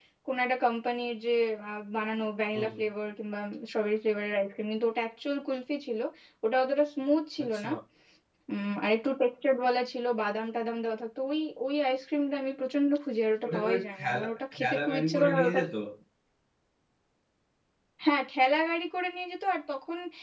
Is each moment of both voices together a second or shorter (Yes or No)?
No